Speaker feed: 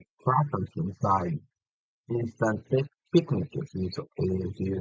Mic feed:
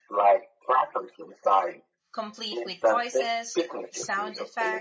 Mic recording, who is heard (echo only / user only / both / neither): both